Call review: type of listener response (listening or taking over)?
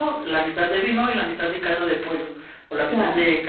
listening